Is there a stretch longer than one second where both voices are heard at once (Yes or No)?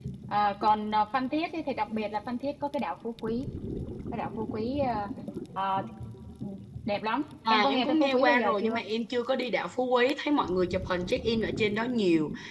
Yes